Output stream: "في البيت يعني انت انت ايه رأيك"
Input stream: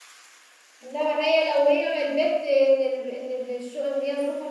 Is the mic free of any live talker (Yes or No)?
No